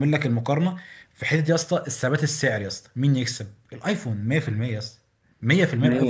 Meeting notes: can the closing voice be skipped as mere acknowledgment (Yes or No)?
No